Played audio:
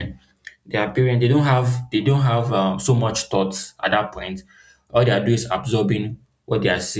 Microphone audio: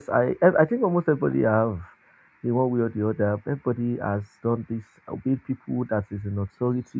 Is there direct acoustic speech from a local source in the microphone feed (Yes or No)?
Yes